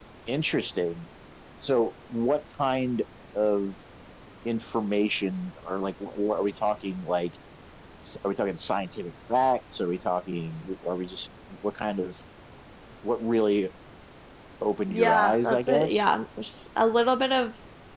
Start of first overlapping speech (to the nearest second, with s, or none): 15 s